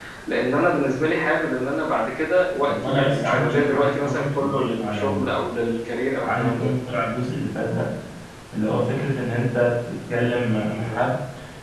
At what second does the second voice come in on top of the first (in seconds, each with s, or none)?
2.7 s